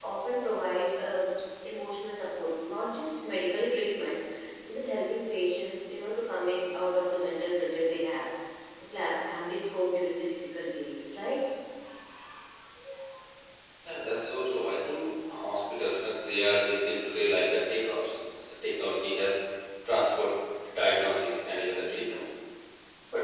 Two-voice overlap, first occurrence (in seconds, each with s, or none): none